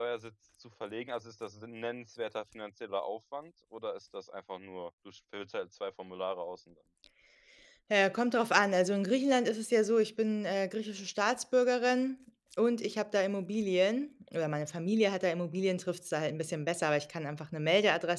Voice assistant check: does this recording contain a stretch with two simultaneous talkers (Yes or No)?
No